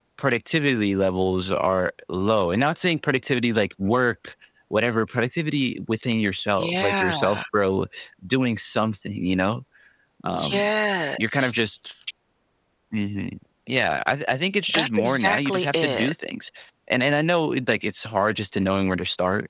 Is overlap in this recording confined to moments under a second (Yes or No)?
No